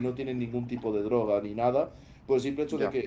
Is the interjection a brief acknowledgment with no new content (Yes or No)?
Yes